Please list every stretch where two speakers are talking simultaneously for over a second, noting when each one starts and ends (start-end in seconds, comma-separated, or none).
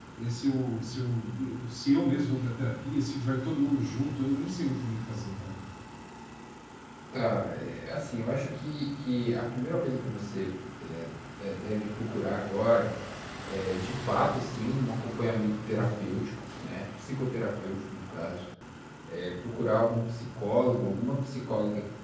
none